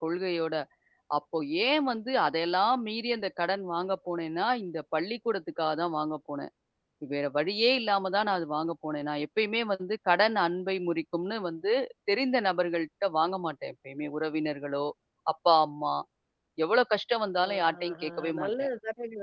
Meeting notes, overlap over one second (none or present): present